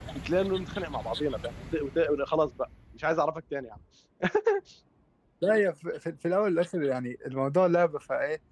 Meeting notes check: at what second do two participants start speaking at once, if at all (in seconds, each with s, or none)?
none